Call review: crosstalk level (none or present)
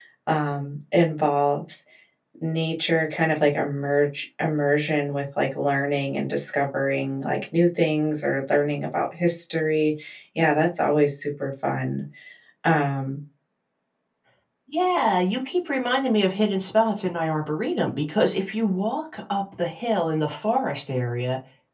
none